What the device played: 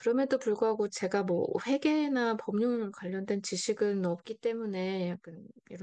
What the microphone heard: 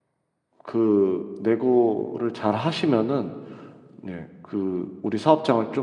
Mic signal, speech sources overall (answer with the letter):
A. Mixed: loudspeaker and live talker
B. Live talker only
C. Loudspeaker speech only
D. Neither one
B